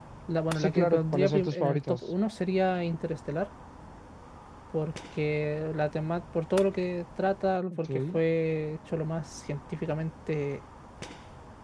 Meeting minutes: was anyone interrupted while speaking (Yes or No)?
Yes